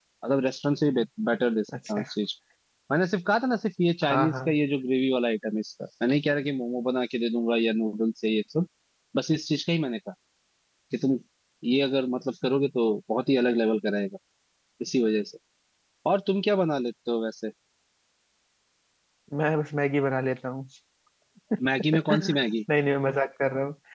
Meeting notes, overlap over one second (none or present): none